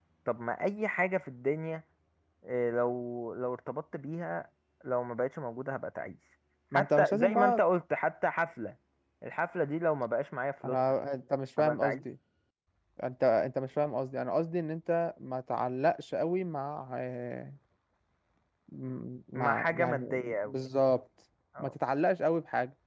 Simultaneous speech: Yes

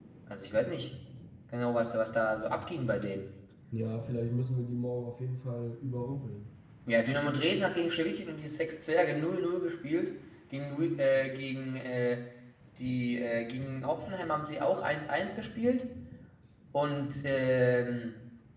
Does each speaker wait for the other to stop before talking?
Yes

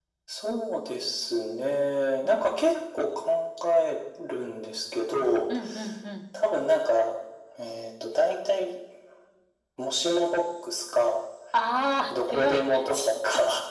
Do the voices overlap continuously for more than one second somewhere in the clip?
No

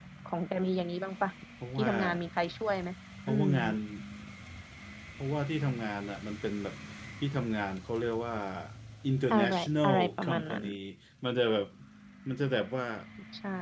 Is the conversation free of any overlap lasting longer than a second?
No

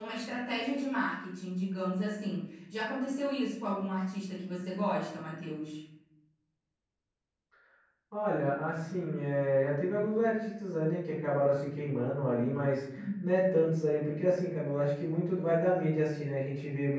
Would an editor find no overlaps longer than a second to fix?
Yes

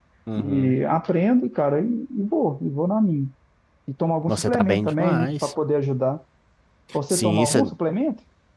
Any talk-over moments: Yes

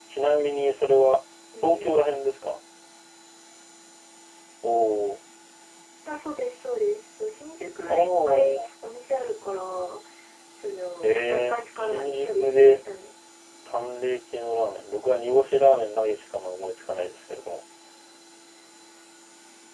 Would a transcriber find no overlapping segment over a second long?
No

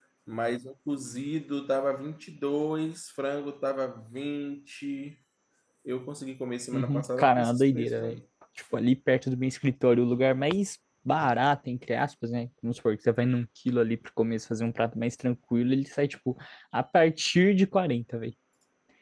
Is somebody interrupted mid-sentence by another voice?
Yes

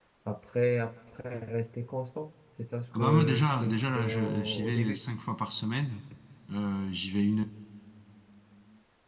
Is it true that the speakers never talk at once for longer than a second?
No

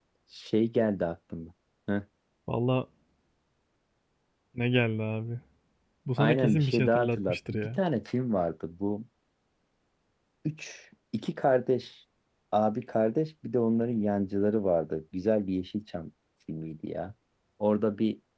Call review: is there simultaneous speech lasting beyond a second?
Yes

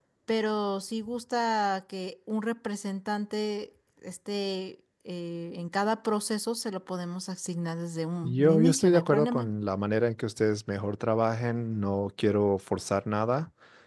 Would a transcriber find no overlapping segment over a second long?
No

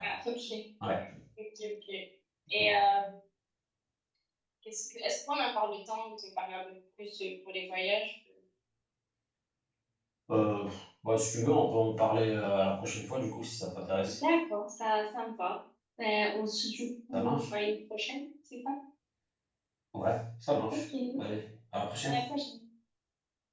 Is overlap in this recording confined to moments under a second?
Yes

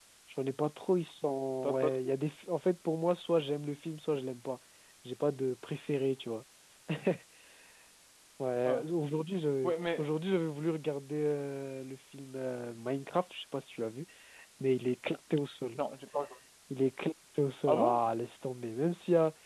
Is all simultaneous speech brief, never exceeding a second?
Yes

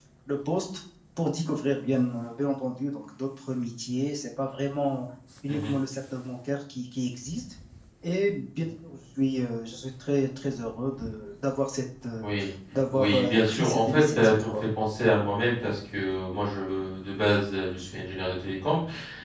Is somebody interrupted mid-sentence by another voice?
Yes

